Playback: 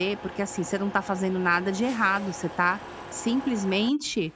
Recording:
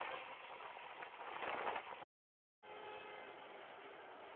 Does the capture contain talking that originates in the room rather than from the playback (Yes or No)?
No